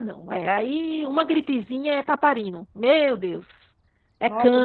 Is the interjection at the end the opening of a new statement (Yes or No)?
Yes